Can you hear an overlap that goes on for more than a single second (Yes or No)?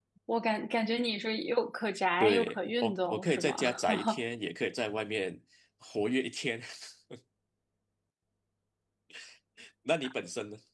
Yes